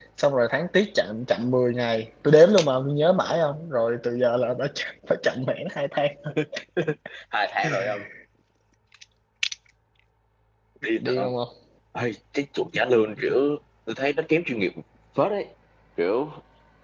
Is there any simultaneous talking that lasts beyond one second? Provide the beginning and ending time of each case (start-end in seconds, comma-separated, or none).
none